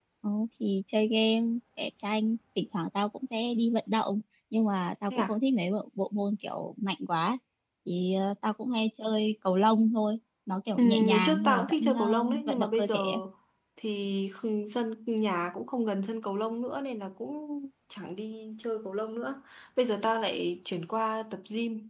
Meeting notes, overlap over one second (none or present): present